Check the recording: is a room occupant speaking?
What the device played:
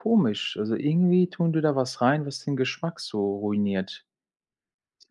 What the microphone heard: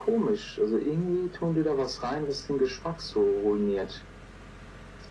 No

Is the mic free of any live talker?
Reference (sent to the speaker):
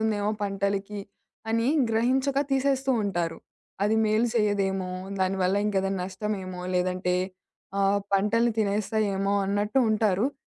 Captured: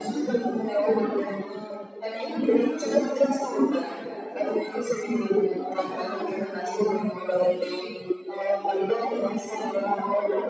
No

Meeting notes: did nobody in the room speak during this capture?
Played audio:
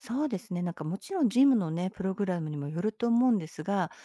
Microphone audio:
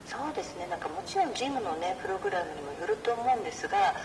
Yes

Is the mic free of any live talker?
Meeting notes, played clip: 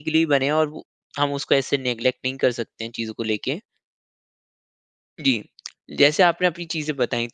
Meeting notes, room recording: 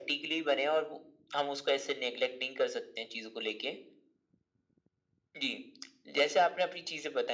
Yes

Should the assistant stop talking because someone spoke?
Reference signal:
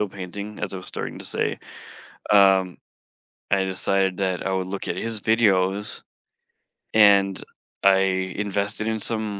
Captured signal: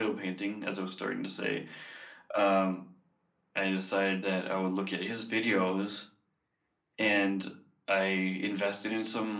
No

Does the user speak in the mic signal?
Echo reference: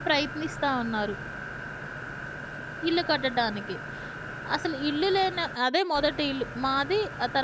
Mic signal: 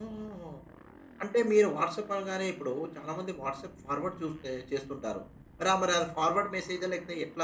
Yes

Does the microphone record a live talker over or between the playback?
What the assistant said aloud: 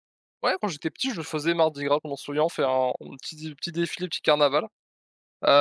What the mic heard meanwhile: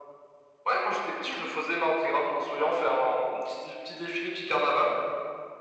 No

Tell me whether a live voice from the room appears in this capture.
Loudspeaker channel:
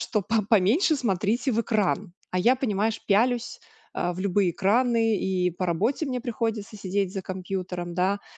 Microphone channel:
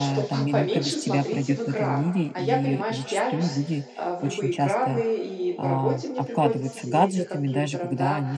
Yes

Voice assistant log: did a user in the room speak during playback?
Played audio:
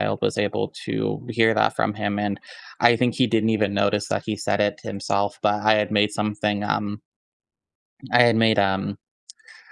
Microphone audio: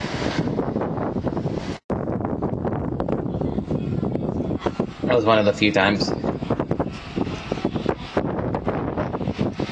Yes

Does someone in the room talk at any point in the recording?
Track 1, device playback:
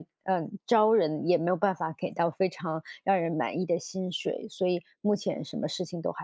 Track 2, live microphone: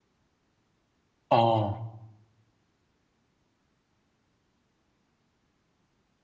Yes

